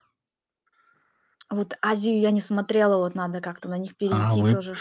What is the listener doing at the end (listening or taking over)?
taking over